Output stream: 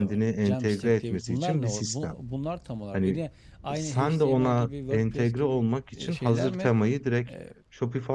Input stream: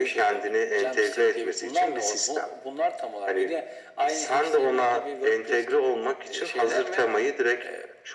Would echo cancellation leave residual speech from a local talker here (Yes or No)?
No